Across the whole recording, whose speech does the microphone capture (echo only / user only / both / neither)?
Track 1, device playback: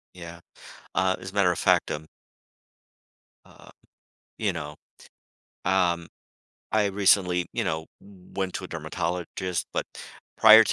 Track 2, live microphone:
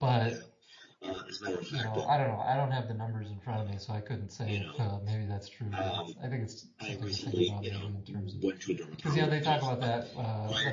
both